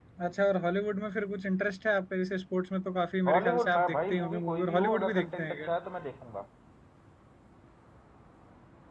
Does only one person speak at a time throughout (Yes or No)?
No